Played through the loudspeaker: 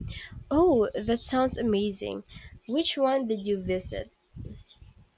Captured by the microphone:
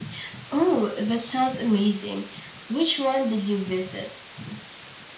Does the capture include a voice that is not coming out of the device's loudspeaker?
No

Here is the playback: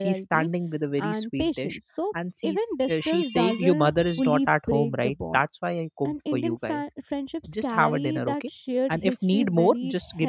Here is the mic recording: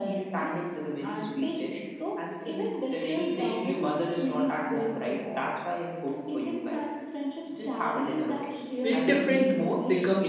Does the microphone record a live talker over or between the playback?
Yes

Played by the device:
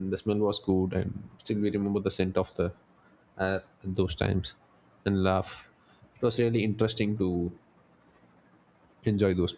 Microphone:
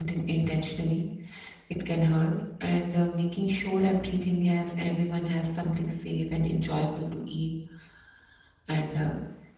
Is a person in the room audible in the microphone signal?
Yes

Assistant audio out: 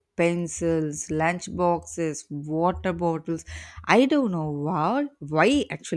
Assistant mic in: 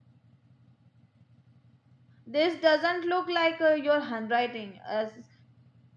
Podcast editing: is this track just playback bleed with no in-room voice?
No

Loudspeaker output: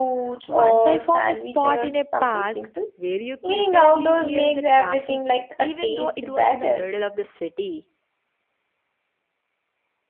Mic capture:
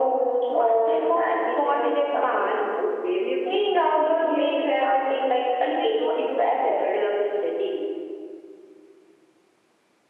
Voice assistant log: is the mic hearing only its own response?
Yes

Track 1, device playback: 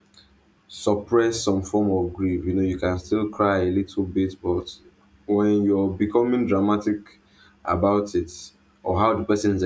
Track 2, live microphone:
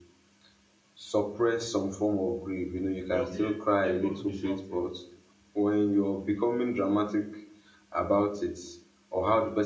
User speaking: Yes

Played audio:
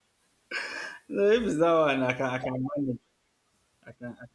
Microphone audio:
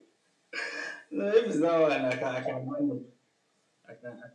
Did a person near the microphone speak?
No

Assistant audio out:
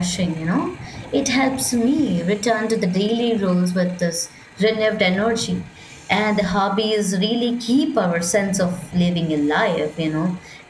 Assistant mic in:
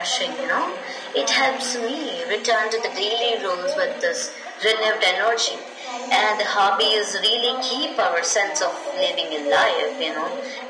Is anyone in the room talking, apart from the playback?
Yes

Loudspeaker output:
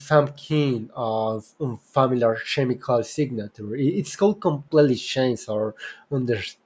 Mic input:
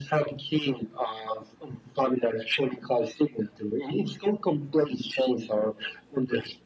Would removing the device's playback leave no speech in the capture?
Yes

